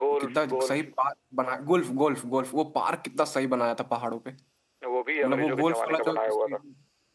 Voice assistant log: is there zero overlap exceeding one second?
No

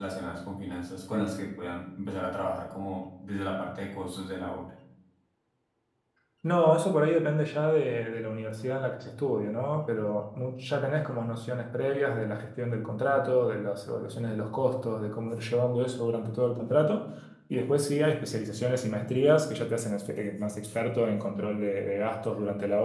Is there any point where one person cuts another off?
No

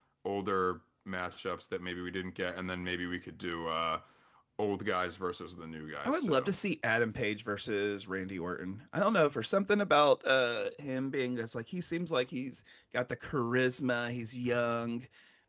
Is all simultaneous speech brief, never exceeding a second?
Yes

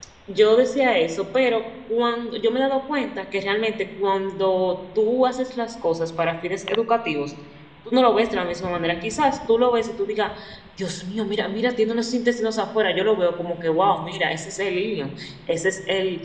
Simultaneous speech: No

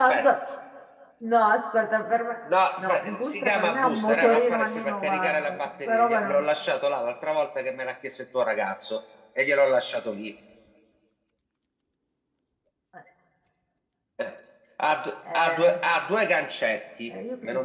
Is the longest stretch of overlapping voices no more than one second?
No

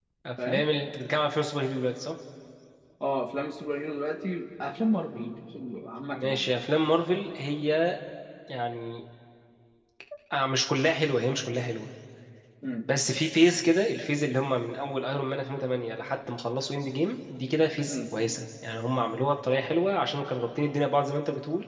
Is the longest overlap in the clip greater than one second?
No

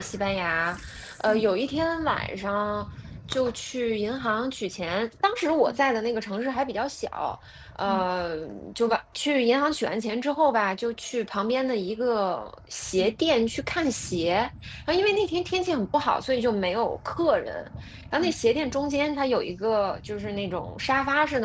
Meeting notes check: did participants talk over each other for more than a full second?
No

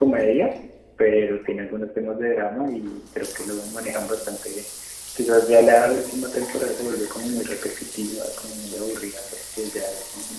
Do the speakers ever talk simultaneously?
No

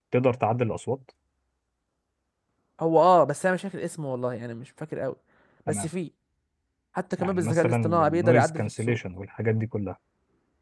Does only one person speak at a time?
No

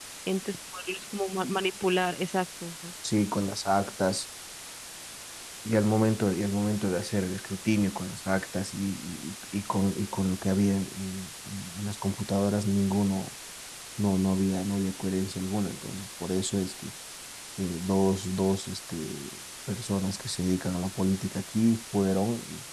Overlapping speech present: No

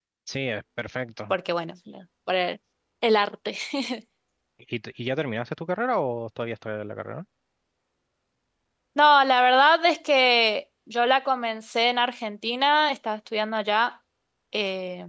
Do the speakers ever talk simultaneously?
No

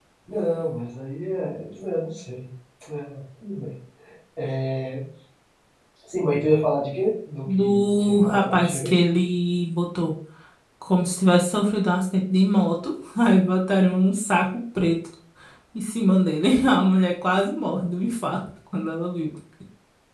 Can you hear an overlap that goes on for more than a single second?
Yes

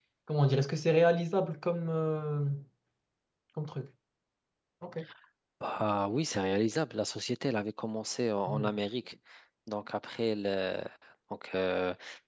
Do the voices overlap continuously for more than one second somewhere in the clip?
No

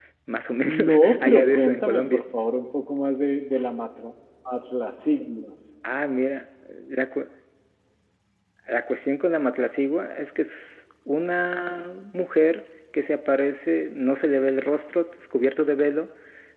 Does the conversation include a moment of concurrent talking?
Yes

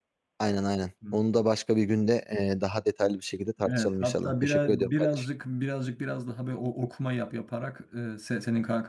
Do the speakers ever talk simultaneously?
Yes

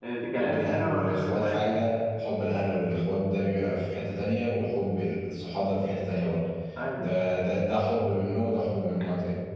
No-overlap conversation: No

